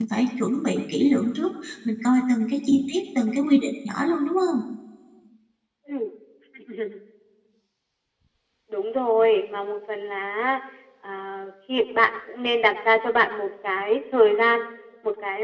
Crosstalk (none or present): none